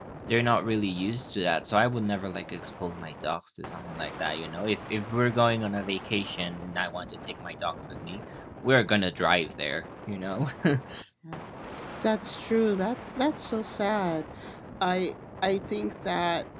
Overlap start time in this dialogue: none

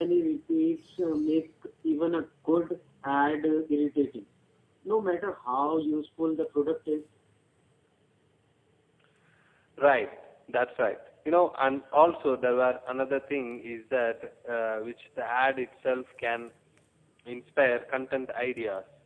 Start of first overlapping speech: none

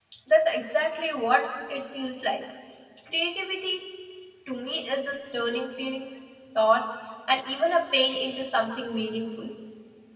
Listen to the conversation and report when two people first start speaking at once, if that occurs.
none

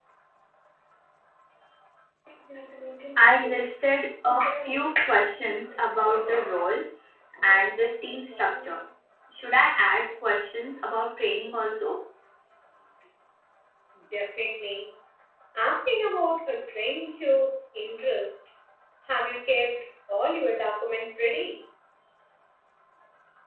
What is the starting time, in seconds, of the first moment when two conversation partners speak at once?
none

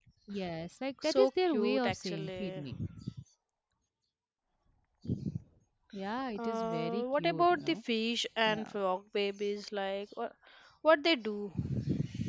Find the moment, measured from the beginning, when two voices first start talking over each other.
1 s

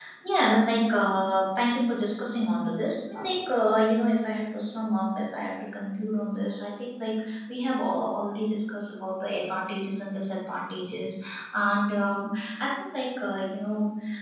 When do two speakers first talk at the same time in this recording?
none

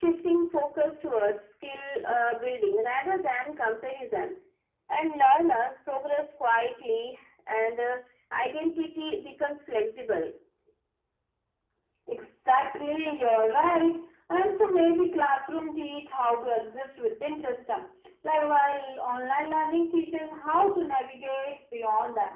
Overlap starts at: none

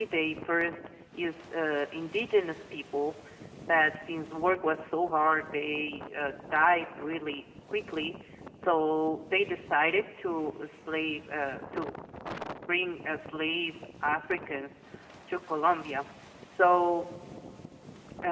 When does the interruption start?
none

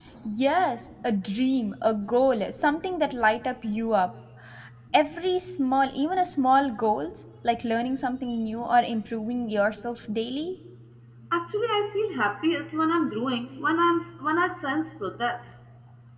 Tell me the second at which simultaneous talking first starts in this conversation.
none

